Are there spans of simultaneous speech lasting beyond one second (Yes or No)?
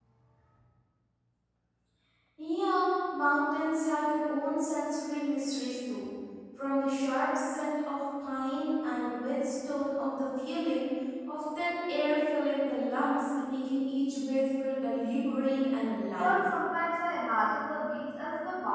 No